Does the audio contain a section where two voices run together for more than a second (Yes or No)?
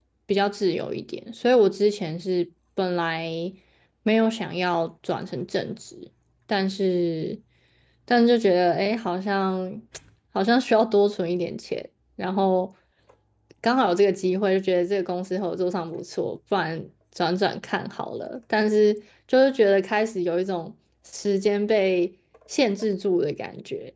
No